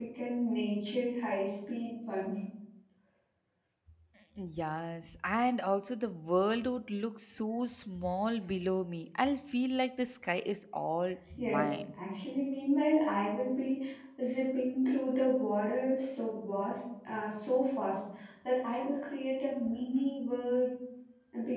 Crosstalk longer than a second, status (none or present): none